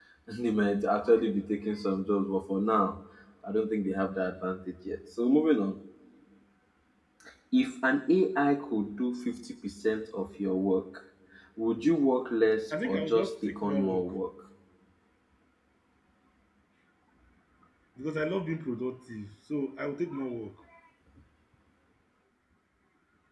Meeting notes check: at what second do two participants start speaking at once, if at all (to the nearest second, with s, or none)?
13 s